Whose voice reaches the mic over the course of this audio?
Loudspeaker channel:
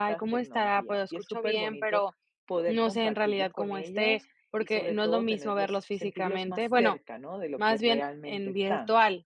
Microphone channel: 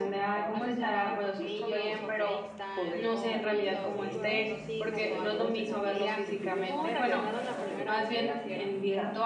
both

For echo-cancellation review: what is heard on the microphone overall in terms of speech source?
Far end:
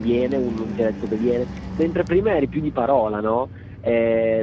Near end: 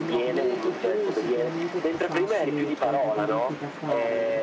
both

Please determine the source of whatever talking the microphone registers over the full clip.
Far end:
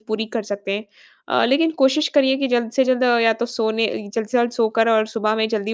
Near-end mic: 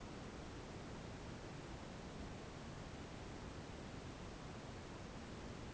neither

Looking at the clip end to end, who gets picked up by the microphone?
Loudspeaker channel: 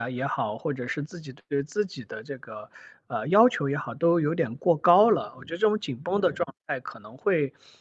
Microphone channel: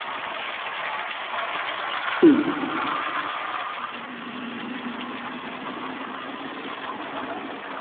user only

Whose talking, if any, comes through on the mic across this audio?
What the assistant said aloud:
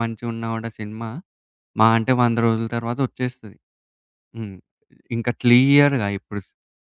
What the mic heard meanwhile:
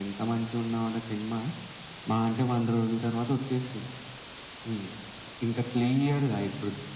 echo only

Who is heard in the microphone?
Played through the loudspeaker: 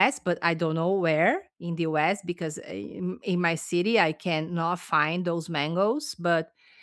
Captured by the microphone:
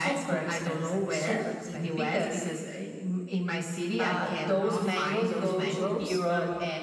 both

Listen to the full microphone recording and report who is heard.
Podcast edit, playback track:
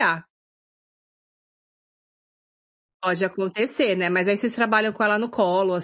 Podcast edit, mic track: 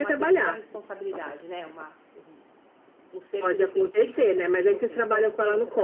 both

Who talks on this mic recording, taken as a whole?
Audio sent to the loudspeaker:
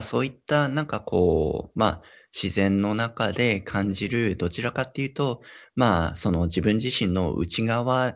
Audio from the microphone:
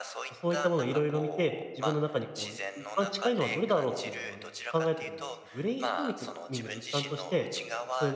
both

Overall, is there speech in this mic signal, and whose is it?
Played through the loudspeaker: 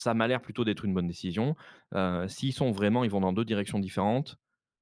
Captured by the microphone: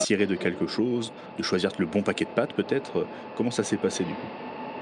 user only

